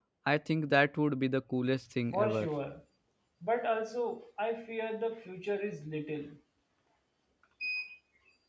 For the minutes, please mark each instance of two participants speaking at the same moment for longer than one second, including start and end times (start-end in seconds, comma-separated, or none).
none